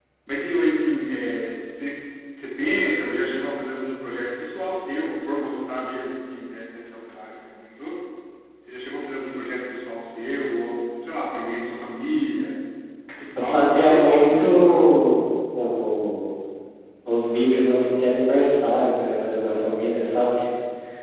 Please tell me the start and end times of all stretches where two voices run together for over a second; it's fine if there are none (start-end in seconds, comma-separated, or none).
13.3-14.8